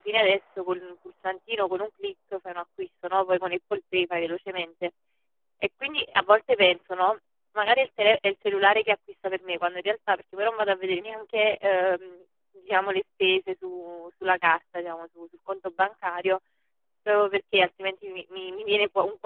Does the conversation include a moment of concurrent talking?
No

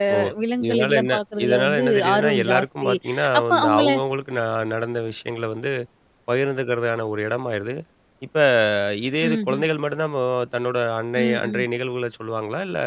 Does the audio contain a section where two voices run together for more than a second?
Yes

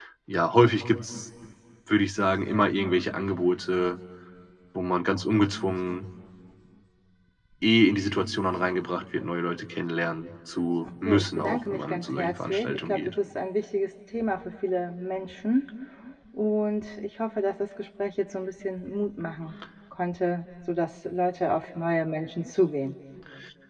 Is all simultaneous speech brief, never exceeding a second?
No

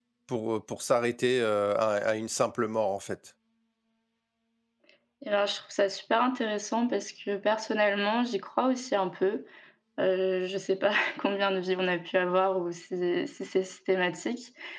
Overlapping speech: No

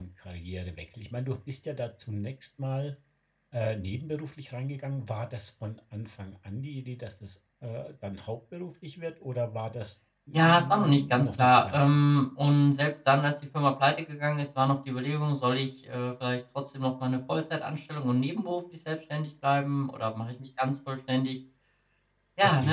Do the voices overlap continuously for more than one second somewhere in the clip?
Yes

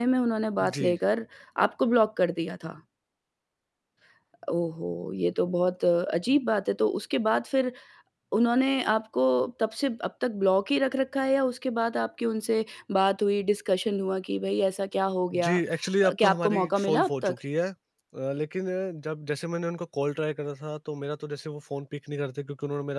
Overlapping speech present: Yes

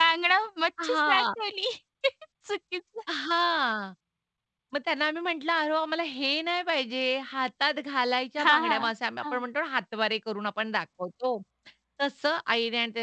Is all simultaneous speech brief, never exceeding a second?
Yes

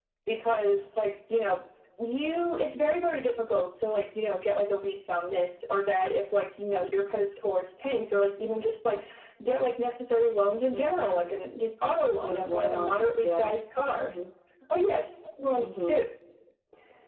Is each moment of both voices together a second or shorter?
No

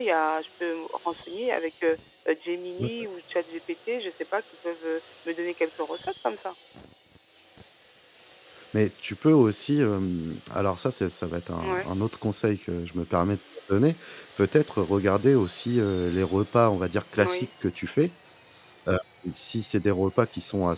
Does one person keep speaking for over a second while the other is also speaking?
No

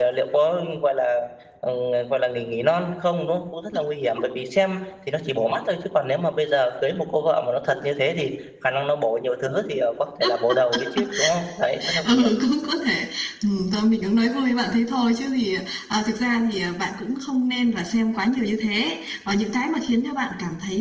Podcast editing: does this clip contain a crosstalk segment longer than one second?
No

